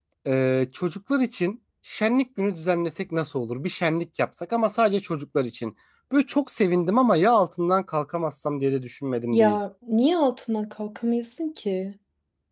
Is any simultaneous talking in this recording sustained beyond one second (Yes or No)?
No